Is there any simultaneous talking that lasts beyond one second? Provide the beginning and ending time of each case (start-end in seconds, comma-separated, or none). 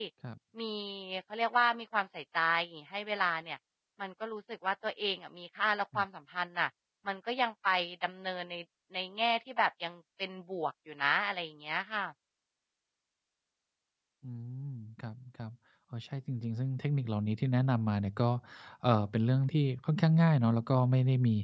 none